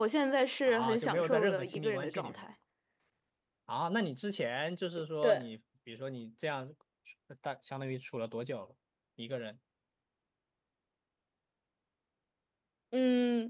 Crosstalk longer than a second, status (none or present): present